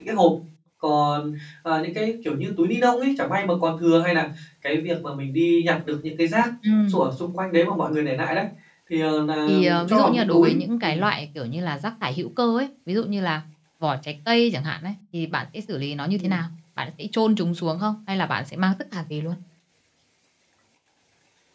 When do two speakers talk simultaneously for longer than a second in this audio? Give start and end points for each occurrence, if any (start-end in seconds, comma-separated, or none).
9.5-11.0